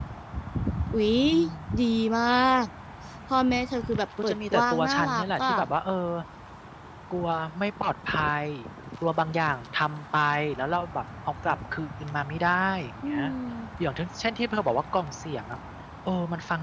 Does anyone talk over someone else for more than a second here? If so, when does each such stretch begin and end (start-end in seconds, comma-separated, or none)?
4.2-5.5